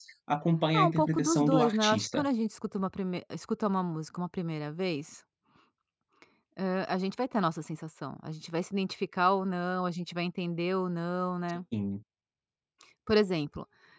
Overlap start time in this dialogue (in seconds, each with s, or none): 0.7 s